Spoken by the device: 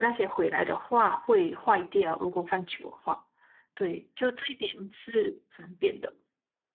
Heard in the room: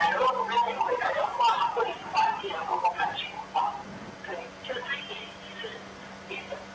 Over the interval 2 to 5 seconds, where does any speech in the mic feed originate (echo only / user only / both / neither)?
echo only